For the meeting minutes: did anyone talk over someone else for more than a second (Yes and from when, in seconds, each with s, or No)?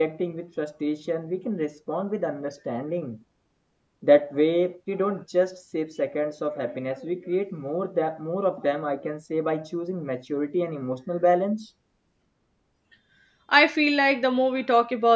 No